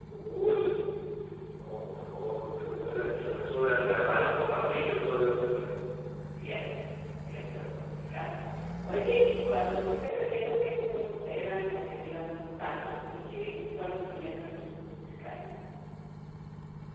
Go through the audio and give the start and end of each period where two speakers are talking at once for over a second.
none

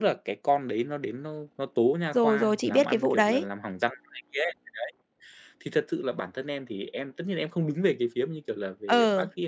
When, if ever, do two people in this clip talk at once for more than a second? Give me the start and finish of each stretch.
2.1-3.5

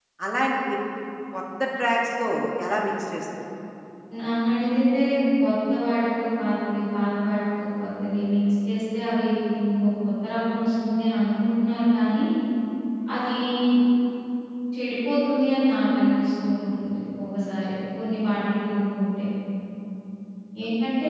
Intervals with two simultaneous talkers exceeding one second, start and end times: none

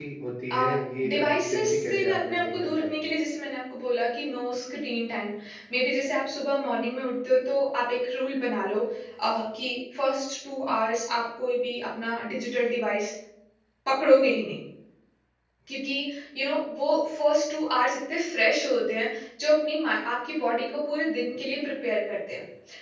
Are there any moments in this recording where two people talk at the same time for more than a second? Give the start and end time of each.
1.1-2.9

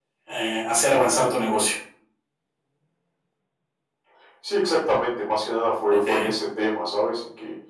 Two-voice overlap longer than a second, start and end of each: none

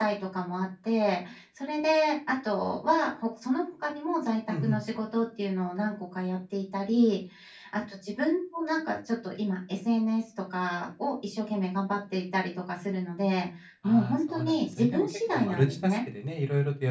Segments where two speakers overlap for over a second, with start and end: 13.8-16.0

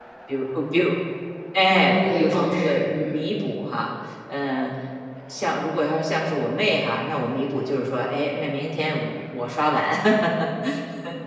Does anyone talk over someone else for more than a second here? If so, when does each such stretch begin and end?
1.7-3.2

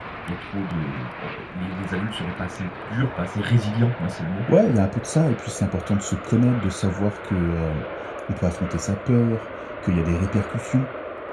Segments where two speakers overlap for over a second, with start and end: none

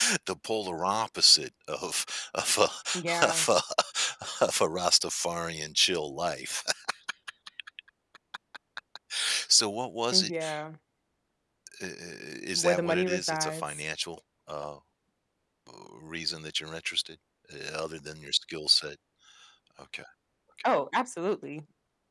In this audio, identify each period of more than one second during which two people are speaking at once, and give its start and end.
12.5-13.8

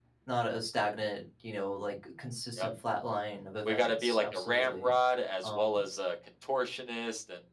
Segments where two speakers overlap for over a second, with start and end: 3.6-4.9

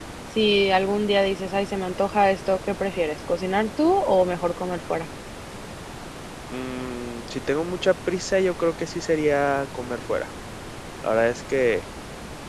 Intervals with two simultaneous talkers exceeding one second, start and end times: none

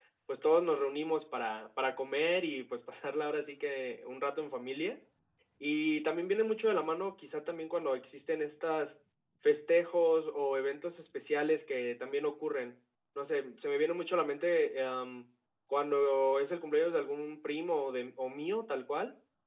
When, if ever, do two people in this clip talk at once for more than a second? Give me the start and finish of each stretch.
none

